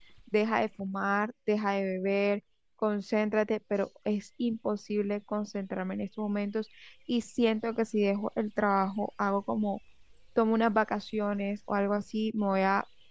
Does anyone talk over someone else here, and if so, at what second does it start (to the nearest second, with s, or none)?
none